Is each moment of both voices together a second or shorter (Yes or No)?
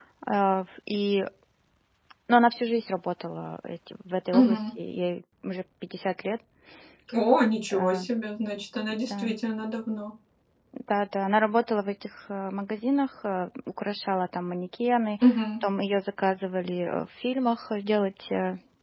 Yes